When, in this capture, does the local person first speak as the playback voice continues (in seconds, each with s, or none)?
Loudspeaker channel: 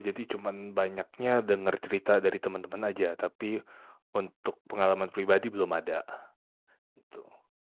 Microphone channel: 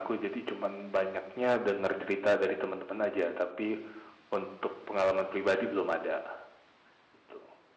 none